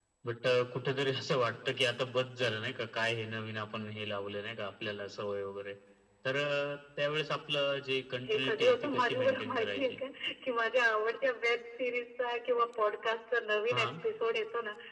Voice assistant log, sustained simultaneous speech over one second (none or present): present